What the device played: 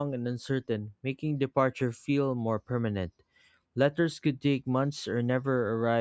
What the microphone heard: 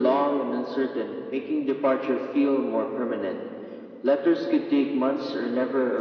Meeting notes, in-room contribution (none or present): none